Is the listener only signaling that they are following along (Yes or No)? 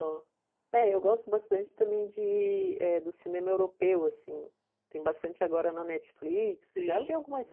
No